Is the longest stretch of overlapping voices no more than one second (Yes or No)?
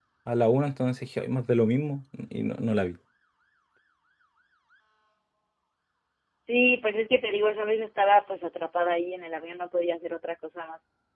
Yes